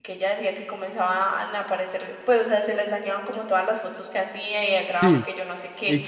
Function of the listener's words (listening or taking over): taking over